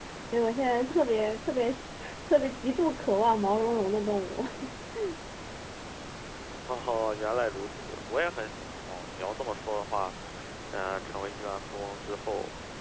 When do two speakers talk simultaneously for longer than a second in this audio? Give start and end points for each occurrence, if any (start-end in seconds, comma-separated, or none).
none